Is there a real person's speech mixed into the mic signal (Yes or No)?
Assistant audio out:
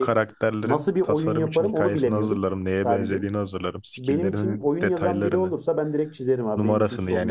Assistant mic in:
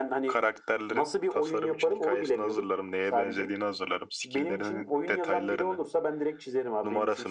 No